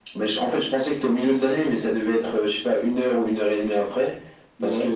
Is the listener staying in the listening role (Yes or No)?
Yes